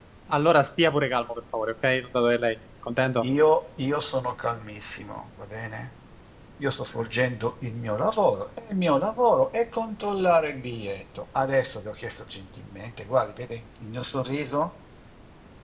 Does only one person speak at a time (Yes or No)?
Yes